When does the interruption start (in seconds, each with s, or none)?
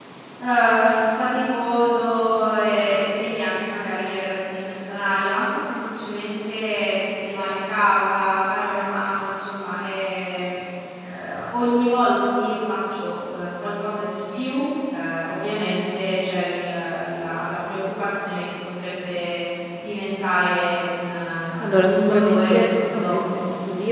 21.8 s